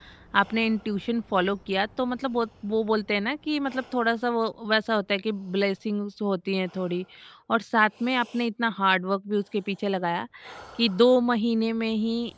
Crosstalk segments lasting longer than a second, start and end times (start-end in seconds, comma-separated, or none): none